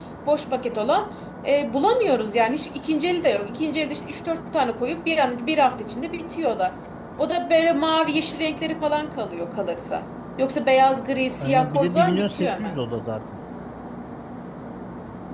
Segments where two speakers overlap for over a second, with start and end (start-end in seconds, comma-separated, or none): 11.4-12.8